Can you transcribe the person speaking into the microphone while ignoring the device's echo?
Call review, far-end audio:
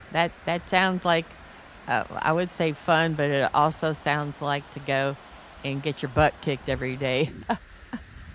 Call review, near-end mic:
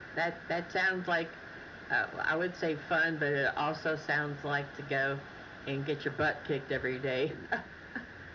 none

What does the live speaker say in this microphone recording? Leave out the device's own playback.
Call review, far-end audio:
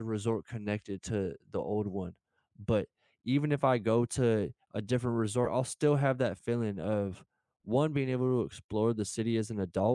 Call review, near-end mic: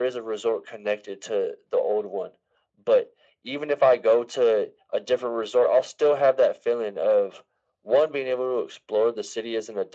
none

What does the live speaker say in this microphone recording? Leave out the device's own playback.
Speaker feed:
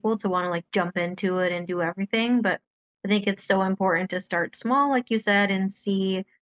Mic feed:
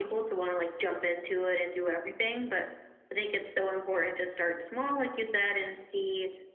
none

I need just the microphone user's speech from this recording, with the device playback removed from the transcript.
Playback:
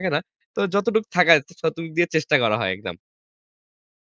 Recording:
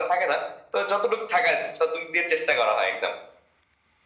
none

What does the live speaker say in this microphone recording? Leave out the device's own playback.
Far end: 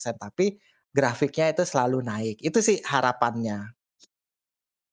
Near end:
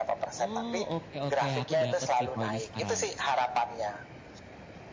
Oh, oke oke, aku dapet sih poinnya sekarang.

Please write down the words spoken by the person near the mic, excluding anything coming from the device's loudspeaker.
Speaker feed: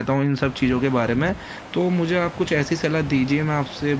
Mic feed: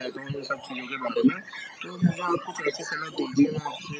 none

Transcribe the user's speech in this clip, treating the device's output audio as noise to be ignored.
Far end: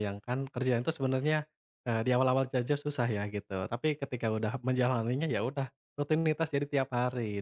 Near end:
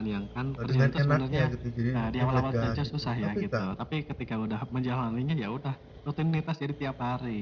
Eee, dengan enaknya gitu, jadi mungkin lega gitu. Tapi Kak,

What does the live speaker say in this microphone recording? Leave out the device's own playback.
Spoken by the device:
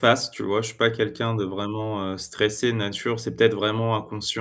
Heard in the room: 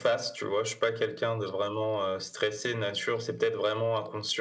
none

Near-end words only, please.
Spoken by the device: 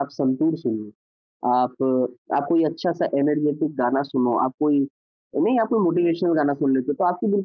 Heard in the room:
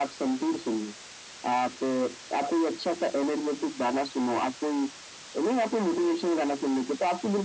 none

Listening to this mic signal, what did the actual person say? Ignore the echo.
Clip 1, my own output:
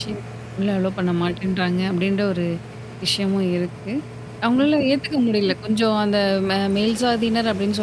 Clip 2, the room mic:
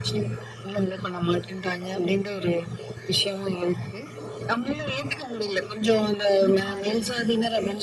இருக்காது.

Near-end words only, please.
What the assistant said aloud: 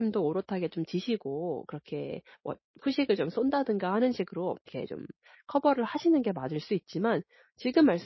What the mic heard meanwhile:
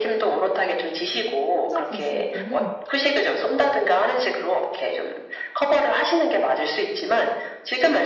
혼자 갔을 때는

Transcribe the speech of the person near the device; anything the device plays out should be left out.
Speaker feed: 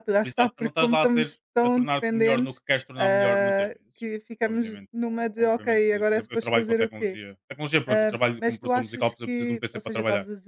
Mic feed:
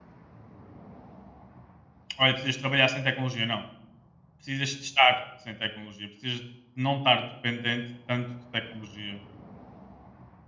"Olha, precisas trabalhar sem tecnologia", não. Precisas de estar sem tecnologia, precisas de não estar dependente tanto de tecnologia,

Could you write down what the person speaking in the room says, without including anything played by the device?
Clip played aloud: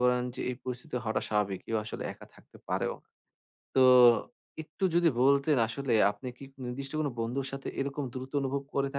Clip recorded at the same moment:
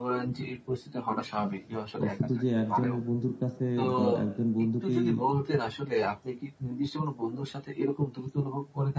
ও শুধু যে একজনের বন্ধুর কাছে বা একজন বন্ধুকেই

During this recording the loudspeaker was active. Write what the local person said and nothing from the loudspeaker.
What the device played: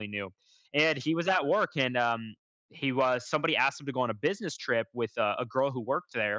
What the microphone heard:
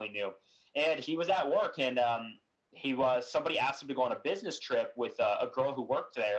none

